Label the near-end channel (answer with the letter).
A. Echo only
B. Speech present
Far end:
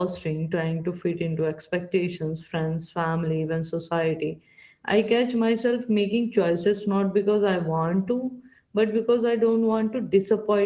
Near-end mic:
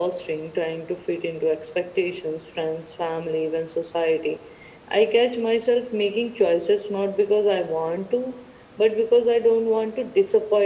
A